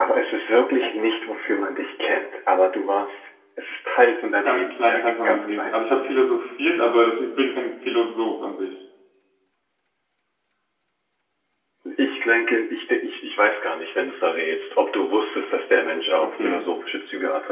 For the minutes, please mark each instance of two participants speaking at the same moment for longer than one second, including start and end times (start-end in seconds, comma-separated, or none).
4.5-5.7